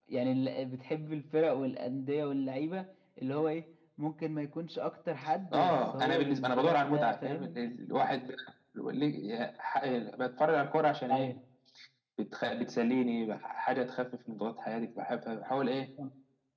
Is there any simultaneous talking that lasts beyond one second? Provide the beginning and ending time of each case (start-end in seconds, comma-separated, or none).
5.5-7.6